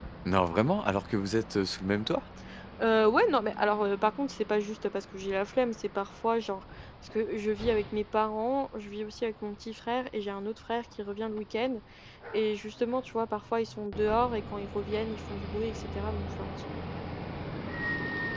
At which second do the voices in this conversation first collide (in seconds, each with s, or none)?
none